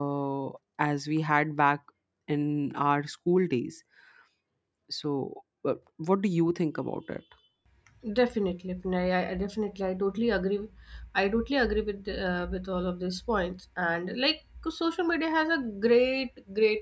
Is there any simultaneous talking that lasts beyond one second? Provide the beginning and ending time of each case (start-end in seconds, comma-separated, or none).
none